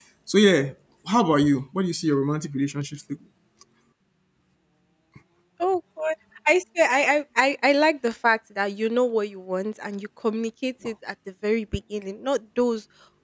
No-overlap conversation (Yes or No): Yes